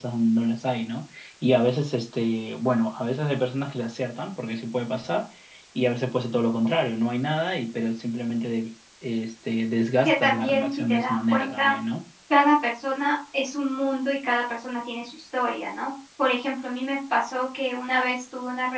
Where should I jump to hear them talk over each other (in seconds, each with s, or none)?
10.1 s